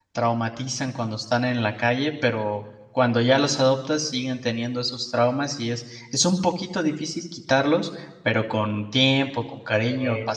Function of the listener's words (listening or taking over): listening